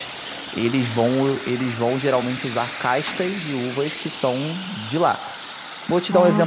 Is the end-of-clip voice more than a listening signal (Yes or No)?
No